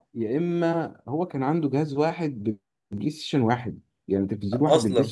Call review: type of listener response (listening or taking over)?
listening